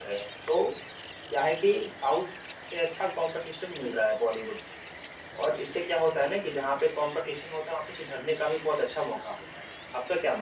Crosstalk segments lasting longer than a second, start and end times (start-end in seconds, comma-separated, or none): none